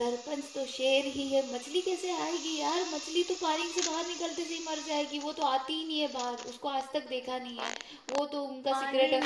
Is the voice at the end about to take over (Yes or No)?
Yes